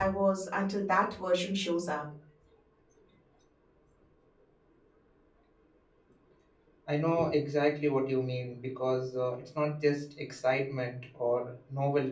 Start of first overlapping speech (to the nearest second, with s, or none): none